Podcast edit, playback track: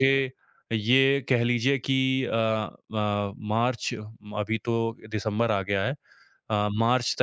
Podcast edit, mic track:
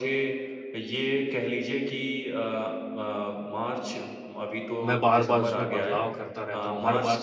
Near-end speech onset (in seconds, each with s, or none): 4.8 s